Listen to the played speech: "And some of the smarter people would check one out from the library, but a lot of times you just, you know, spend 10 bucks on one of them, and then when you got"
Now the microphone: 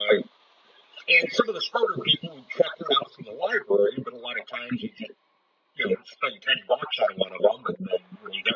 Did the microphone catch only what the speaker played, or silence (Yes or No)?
Yes